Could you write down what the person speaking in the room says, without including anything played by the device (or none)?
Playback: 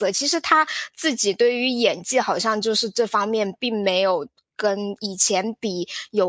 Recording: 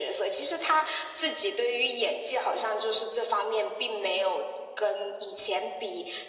none